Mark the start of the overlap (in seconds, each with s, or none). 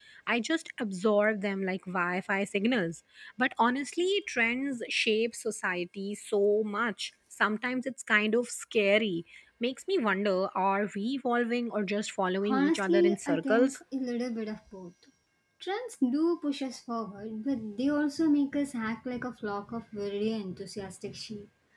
12.5 s